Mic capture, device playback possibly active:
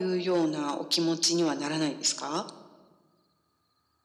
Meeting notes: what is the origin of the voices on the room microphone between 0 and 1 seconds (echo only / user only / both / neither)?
echo only